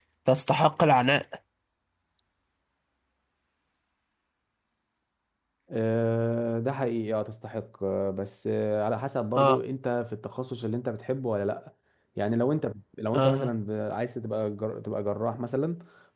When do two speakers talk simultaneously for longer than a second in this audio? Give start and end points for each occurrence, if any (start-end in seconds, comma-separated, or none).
none